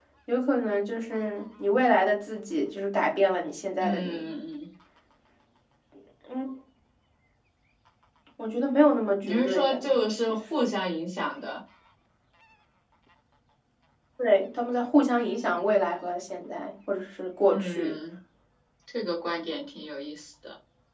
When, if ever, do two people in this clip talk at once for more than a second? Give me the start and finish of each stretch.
9.2-10.7

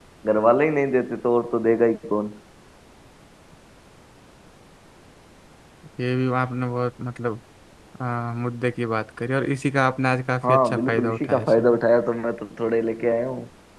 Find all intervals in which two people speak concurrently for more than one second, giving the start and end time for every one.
10.5-11.8

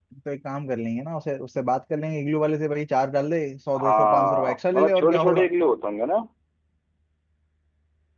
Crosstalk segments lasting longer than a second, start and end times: 3.8-5.5

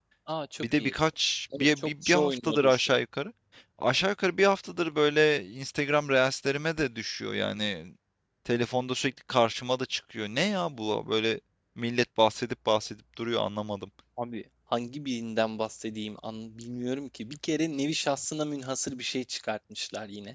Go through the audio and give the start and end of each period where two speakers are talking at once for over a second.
1.6-2.9

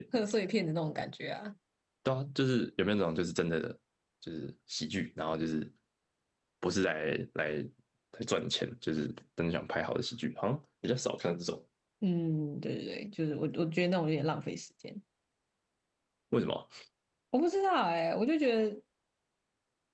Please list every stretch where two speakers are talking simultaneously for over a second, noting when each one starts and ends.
none

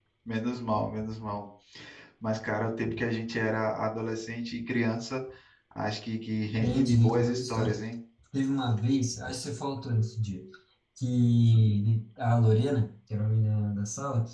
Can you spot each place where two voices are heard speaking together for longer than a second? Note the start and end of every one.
6.6-7.8

